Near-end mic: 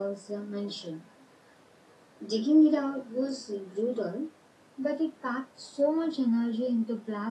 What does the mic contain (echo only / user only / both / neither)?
echo only